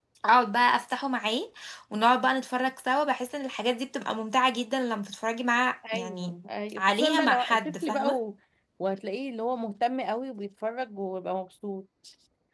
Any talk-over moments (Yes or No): Yes